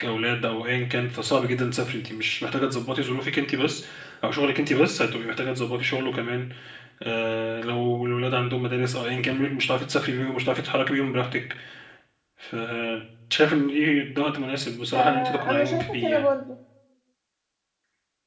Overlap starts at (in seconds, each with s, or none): 14.9 s